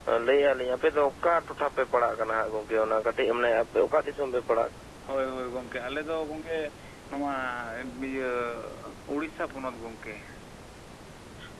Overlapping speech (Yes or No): No